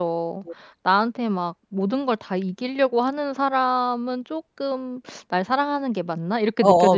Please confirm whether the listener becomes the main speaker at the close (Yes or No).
Yes